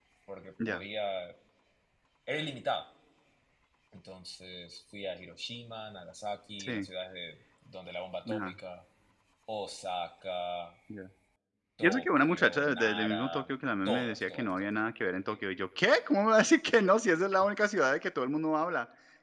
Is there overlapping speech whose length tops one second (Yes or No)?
Yes